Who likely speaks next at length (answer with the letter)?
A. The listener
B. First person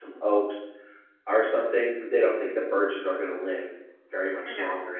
B